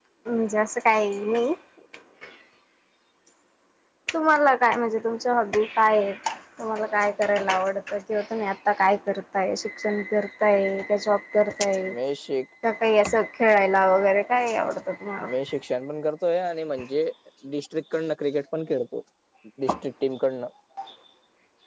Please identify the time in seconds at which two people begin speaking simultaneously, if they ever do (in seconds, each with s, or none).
none